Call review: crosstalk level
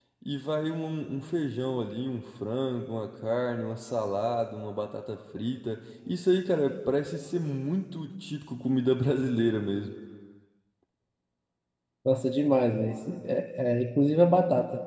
none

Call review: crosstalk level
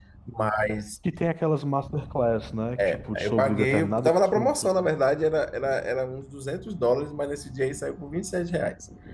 present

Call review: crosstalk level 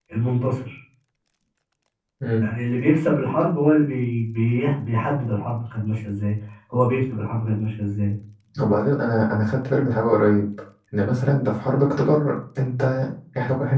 none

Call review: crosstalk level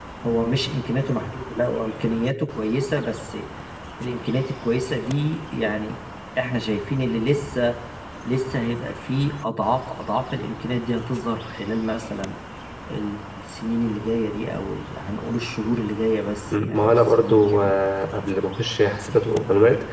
present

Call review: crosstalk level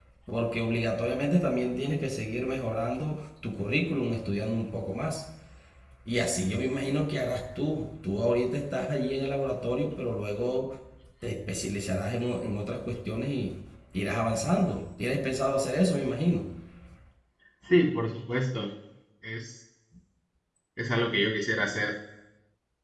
none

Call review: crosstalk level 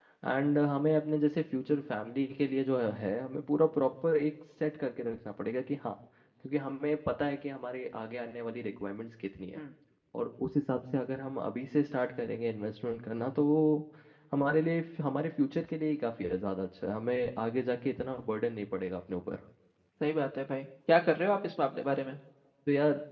none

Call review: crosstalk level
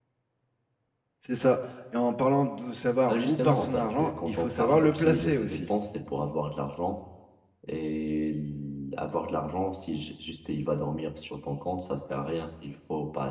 present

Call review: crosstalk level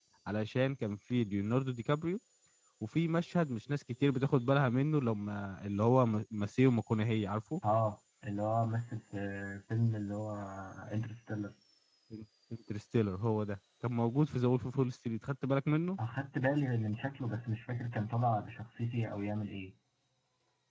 none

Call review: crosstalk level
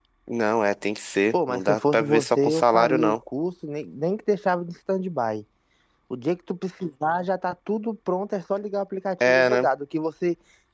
present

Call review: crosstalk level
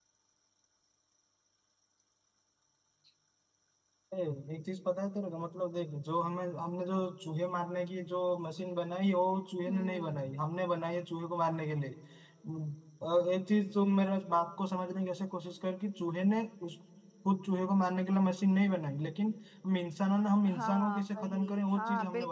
present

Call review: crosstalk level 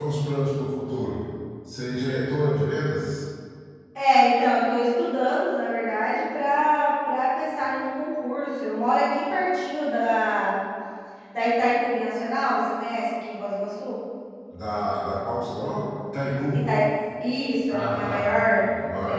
present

